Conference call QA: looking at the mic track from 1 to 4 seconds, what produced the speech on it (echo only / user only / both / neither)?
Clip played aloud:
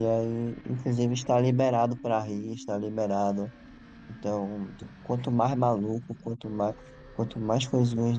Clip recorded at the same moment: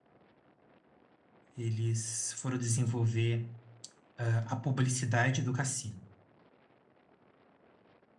user only